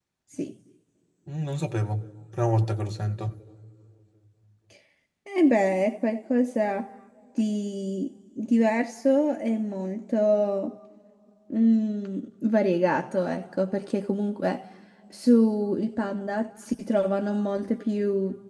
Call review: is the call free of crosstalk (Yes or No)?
Yes